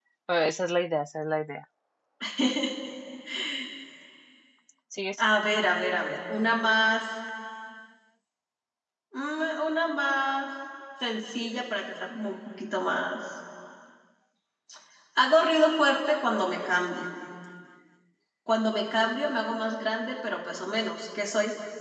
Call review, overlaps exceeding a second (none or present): none